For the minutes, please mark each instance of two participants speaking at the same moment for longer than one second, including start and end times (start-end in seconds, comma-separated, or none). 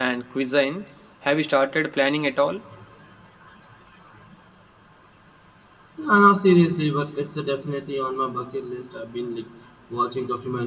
none